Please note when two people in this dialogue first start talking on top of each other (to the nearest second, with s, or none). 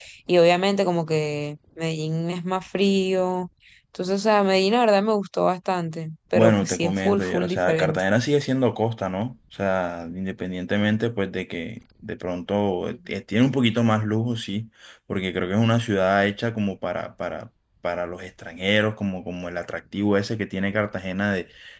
6 s